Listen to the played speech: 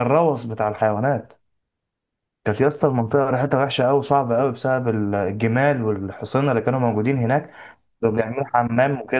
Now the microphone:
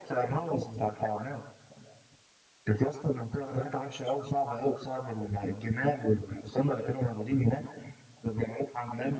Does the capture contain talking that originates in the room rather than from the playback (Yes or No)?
No